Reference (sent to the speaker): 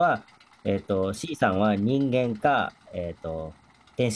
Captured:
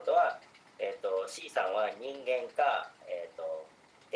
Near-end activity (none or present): none